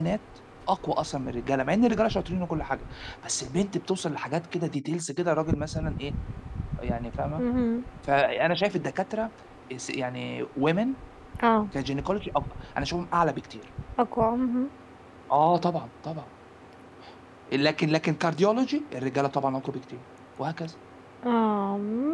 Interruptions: none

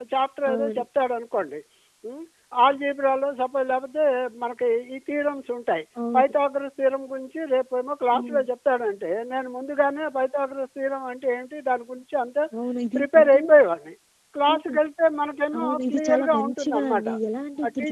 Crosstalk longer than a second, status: present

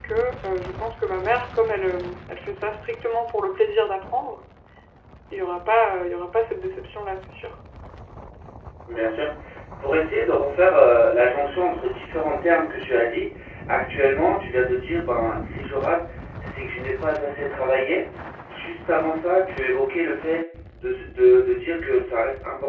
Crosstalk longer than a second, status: none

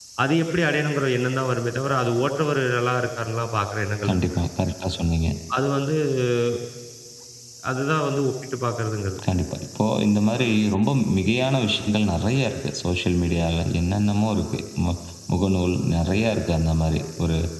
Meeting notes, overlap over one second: none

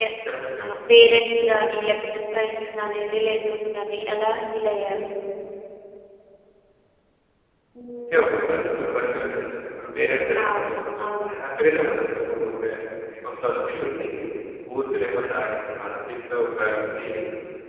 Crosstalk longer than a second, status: none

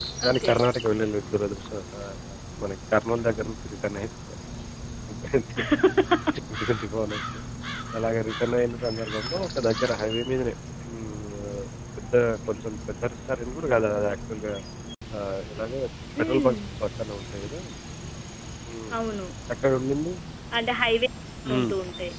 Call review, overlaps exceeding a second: none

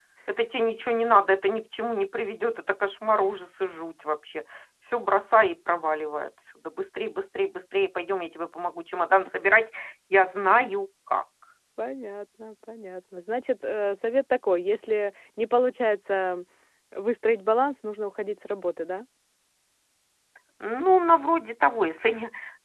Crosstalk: none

